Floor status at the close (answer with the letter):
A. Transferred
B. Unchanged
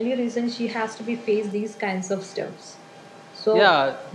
A